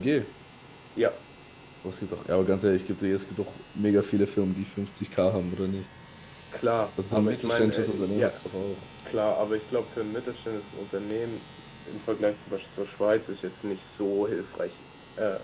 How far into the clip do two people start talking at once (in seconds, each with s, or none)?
7.1 s